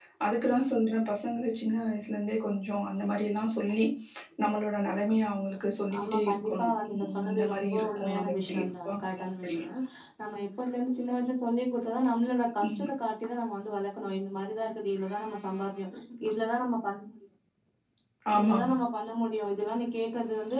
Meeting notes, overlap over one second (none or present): present